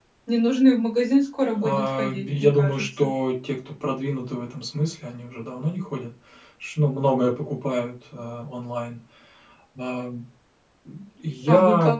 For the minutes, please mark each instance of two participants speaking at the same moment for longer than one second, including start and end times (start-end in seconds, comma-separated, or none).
1.6-3.1